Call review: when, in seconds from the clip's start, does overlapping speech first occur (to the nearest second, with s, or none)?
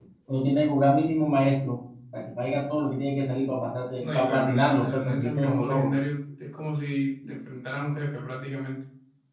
4 s